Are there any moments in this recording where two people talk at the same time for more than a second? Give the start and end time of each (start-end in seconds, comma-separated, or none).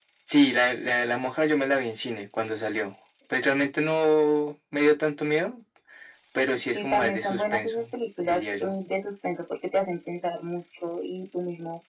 6.6-7.8